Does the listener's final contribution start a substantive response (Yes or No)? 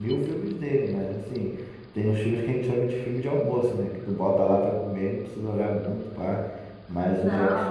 No